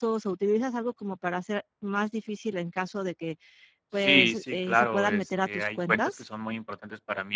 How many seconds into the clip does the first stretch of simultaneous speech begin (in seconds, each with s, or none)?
4.0 s